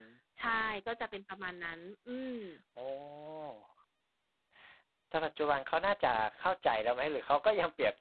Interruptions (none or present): none